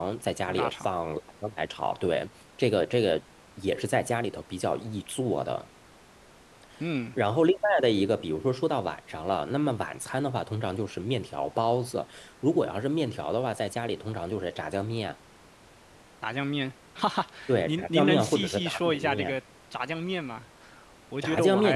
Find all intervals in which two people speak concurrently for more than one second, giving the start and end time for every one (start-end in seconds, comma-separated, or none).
17.7-19.4